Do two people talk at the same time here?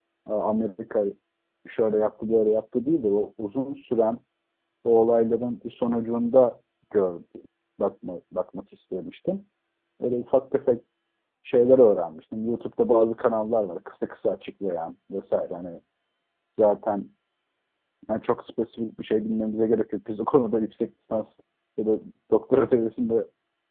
No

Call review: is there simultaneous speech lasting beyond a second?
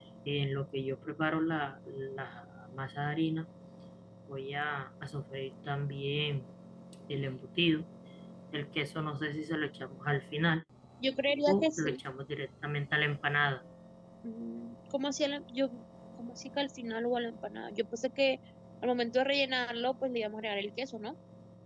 No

